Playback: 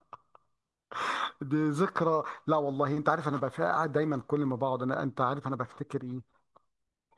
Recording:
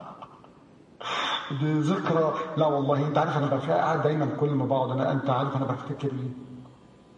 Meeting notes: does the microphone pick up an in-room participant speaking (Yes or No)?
No